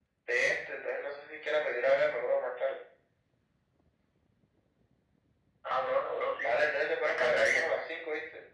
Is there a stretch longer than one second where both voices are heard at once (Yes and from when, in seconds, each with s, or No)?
Yes, from 6.4 s